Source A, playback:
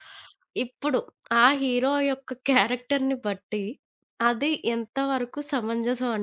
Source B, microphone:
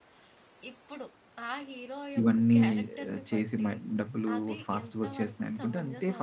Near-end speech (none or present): present